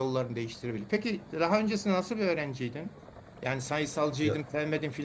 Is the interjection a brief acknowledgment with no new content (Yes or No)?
Yes